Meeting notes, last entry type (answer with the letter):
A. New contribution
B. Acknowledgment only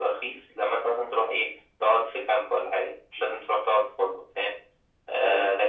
B